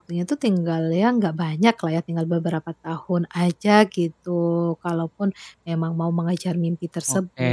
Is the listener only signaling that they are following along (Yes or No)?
No